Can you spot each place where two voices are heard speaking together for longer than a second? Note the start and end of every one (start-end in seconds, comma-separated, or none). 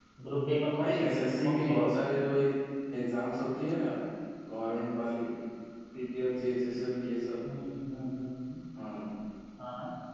0.5-1.9